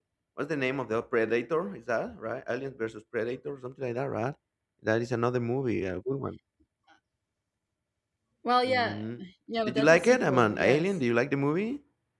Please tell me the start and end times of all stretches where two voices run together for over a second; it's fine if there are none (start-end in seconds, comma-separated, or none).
9.7-10.9